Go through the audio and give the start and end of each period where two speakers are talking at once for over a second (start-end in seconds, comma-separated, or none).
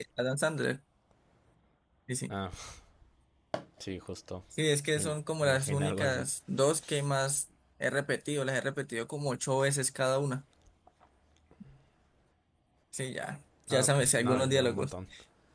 4.9-6.3, 13.7-14.9